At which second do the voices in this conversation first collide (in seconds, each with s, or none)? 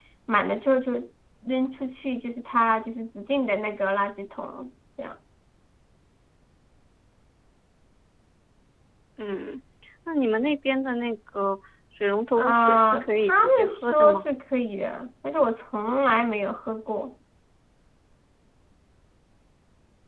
12.3 s